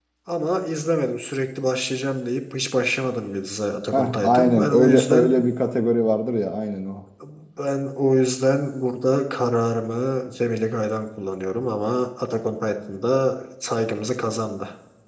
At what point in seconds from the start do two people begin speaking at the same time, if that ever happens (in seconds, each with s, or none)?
3.9 s